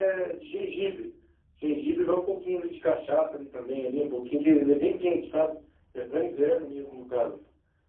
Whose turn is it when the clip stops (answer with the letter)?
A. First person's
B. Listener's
A